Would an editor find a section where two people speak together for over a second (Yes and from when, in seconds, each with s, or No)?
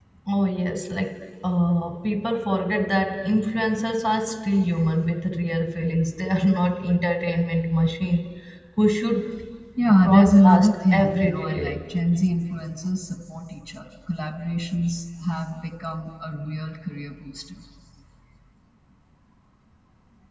Yes, from 10.0 s